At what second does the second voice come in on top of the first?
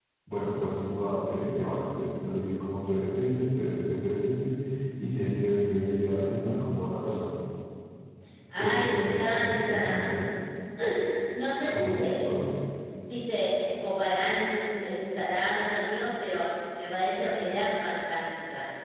9 s

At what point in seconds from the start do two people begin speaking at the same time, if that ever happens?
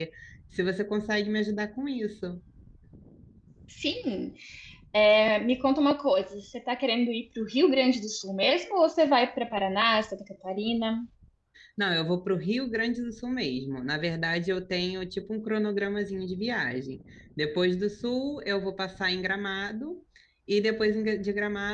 none

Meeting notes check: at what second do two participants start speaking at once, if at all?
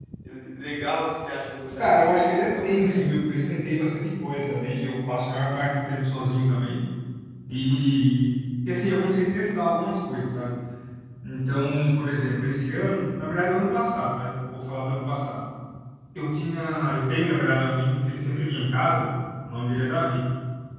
2 s

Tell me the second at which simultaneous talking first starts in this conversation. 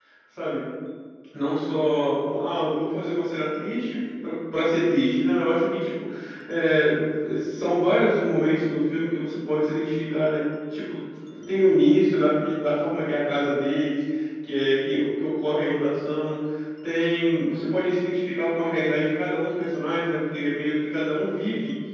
none

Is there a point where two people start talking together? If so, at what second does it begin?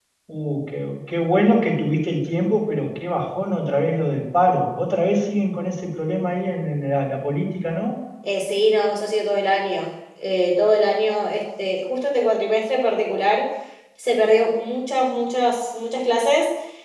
none

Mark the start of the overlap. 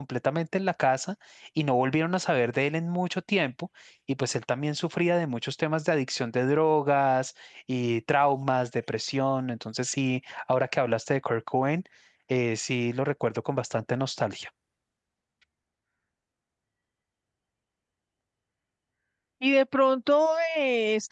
none

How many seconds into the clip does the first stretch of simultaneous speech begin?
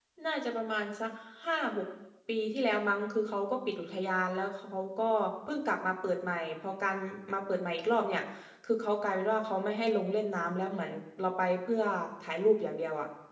none

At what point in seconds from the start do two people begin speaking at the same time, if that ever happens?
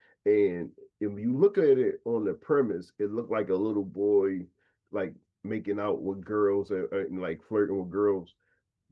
none

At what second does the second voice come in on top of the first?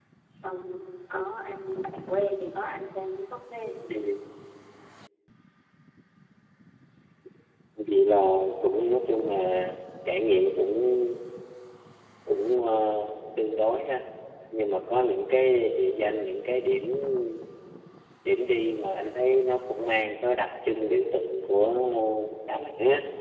none

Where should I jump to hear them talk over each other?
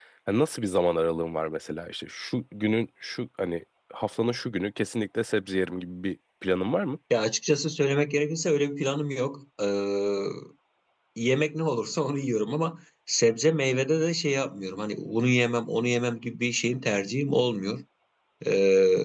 none

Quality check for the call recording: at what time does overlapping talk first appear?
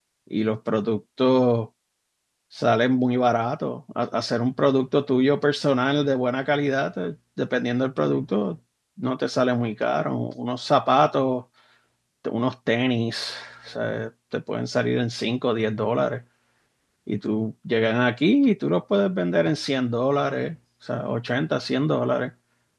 none

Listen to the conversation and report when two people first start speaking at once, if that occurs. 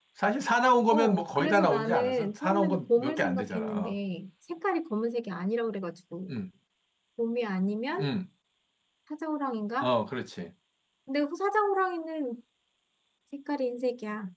1 s

